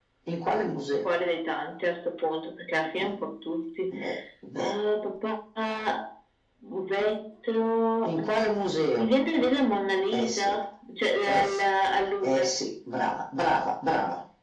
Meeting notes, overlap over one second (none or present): none